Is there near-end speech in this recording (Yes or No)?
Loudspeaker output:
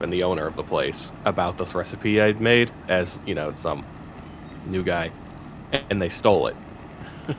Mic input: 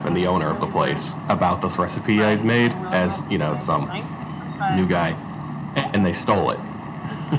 Yes